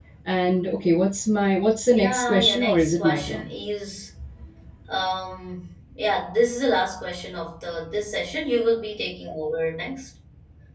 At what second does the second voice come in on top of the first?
2 s

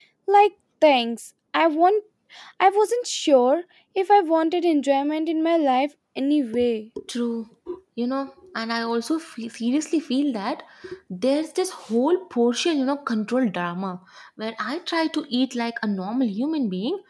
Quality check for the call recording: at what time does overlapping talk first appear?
none

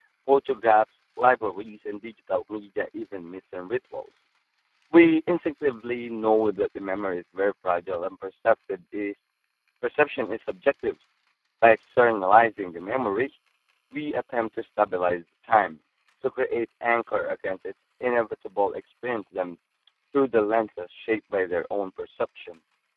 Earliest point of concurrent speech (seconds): none

